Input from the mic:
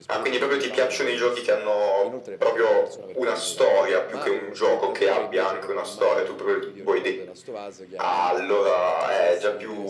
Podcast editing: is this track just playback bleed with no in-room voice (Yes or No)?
No